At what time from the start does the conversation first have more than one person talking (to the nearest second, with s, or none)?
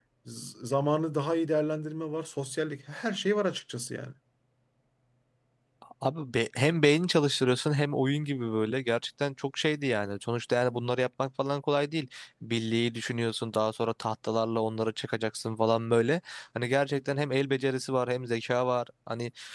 none